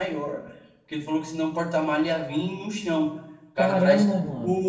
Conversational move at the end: listening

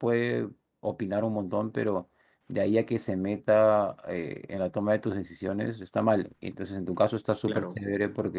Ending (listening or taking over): listening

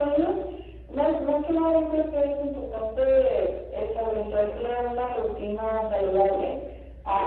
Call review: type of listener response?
listening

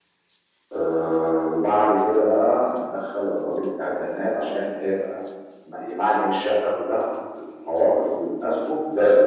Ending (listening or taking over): taking over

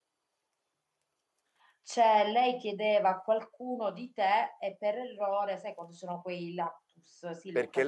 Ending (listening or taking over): taking over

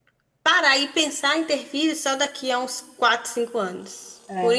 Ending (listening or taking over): listening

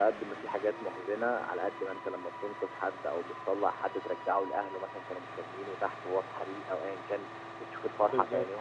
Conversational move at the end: listening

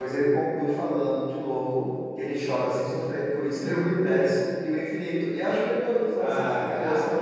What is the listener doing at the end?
taking over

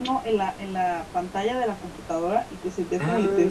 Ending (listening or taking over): taking over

